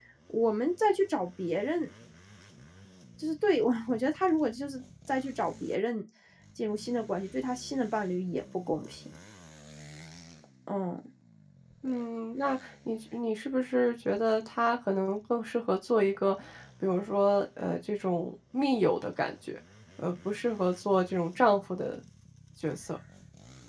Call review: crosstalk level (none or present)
none